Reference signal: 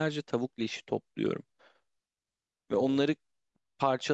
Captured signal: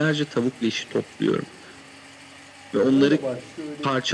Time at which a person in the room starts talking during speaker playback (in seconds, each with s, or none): 2.9 s